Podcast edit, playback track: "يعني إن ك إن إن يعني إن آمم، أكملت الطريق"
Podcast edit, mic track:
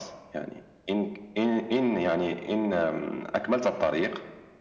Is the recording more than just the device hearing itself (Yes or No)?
No